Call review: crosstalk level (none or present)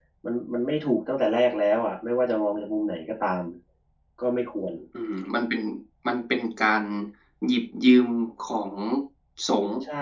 none